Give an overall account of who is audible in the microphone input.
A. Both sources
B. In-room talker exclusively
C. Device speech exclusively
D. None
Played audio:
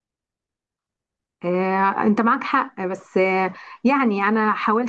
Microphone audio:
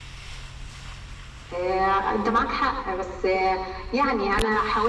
C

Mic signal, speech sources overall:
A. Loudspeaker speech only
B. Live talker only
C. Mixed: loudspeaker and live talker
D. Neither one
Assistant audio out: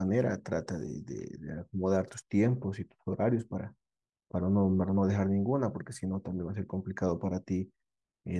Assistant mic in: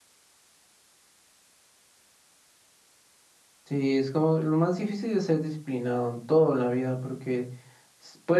B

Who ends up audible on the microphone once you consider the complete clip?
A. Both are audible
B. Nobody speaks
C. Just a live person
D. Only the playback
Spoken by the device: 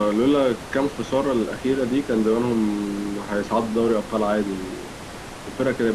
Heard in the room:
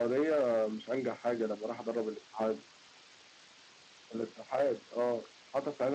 C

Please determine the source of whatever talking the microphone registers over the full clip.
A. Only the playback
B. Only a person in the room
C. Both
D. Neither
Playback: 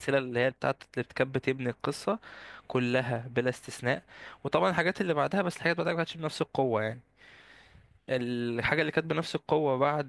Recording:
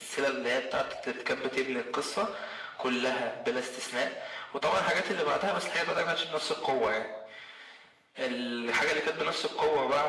A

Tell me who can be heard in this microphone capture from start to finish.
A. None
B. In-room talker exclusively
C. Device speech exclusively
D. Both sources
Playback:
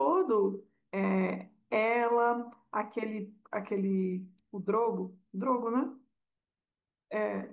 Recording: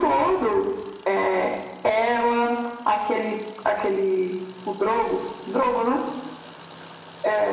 C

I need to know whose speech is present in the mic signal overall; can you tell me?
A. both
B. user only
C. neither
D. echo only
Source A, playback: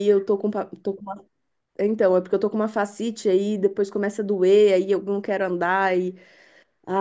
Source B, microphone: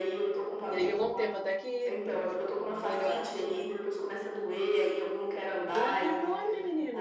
A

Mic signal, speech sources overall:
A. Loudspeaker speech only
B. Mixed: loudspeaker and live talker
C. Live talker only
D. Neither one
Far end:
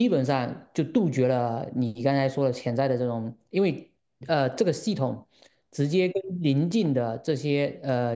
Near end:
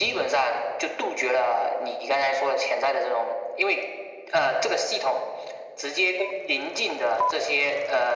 A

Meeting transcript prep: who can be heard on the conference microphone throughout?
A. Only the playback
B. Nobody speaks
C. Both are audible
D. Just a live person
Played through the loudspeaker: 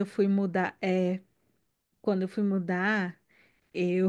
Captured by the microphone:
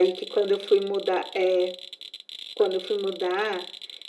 A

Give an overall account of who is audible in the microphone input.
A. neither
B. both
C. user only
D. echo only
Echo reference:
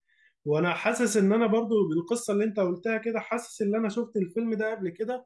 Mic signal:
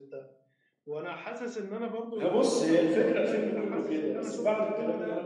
B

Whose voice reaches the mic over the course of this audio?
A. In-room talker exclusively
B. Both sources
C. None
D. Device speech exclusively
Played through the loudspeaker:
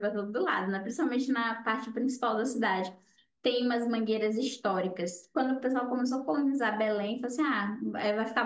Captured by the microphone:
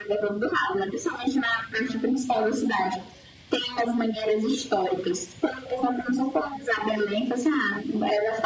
D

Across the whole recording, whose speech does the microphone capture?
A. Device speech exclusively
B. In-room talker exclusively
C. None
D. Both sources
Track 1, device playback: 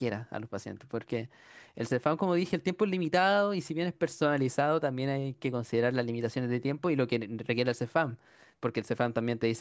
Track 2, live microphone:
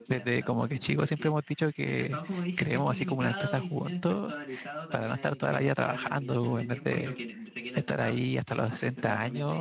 D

